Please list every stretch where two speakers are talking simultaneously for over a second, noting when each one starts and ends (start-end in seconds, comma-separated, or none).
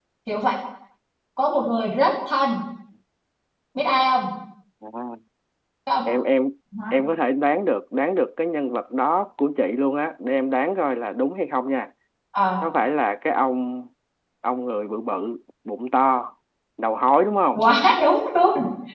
none